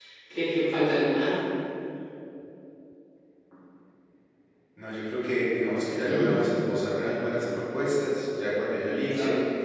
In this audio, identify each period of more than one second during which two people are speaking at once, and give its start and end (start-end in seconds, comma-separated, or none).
none